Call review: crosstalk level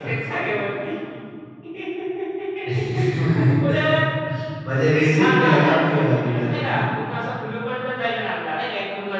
present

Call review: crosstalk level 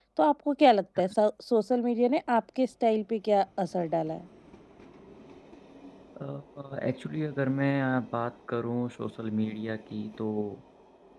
none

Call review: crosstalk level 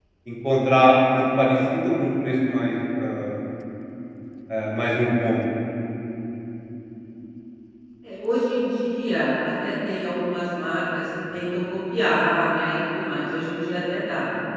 none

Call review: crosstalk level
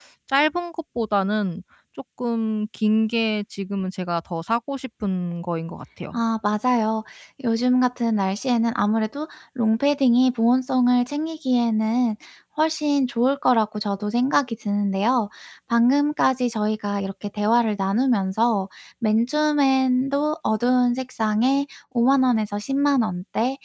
none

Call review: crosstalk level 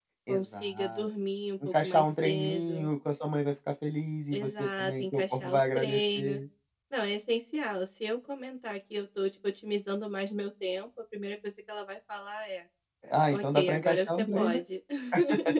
present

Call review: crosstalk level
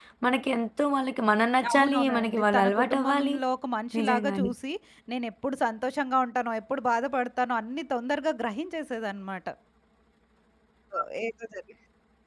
present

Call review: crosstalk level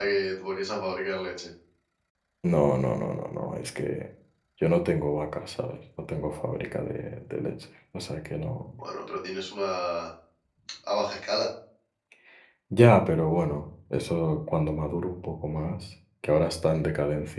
none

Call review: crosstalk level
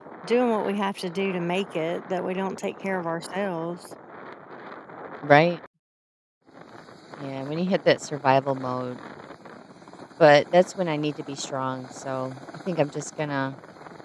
none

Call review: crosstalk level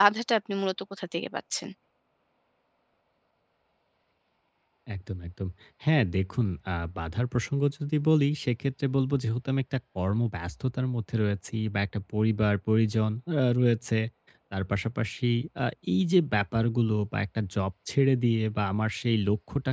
none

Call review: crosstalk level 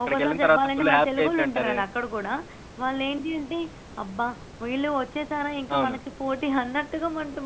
present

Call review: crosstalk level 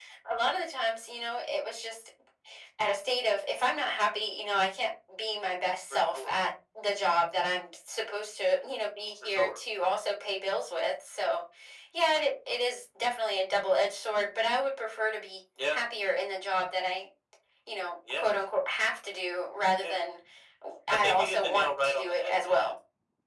present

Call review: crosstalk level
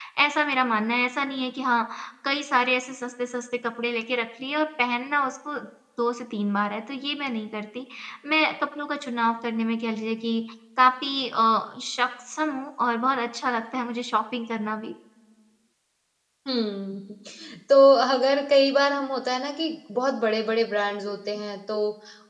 none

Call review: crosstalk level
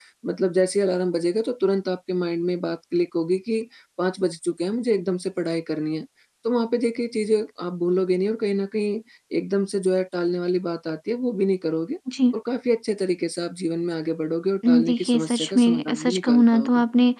present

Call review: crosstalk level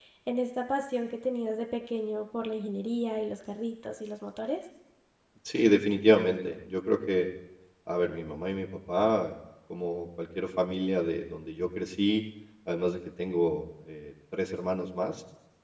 none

